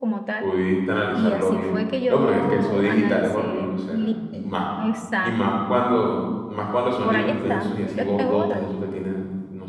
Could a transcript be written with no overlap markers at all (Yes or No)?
No